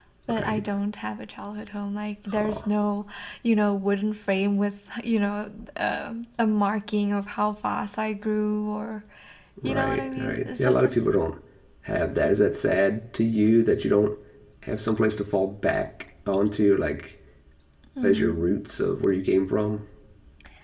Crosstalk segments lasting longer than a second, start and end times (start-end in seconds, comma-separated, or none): 9.6-11.1